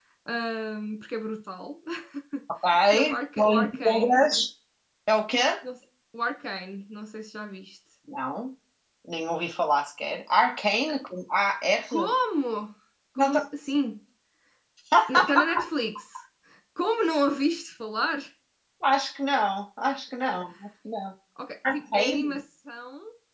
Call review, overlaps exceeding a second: present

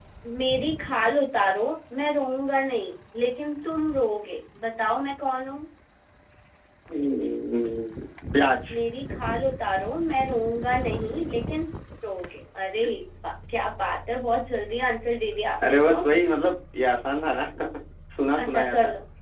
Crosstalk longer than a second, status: none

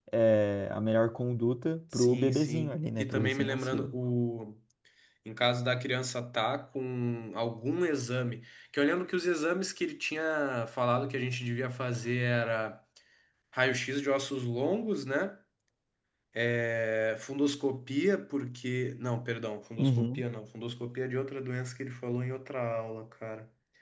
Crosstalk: present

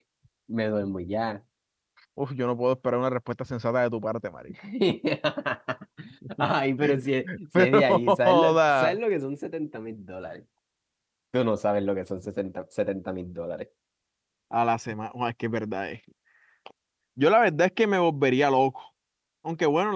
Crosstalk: present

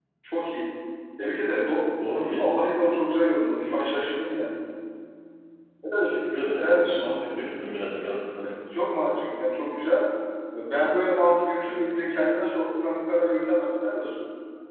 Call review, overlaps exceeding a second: none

